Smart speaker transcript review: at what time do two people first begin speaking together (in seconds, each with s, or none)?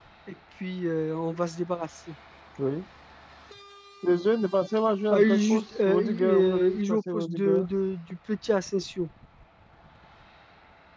5.1 s